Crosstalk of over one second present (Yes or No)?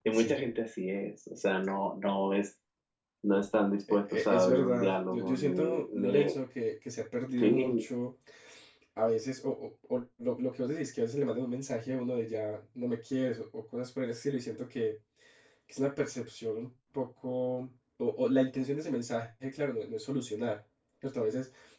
Yes